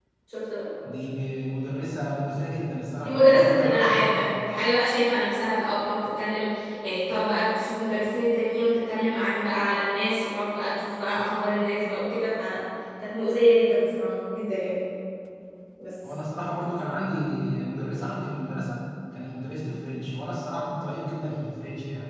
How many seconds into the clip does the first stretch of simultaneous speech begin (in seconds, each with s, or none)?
3.0 s